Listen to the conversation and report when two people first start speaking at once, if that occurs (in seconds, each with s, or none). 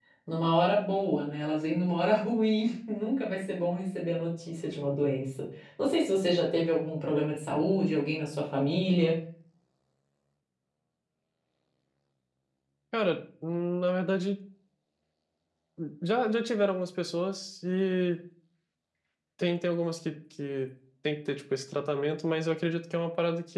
none